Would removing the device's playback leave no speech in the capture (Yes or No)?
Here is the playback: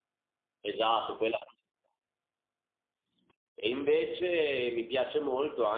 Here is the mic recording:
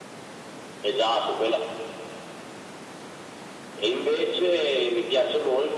Yes